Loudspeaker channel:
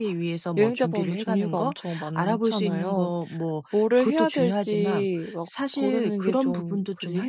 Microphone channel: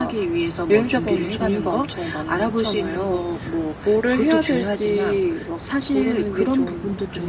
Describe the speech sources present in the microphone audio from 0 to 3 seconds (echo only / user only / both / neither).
echo only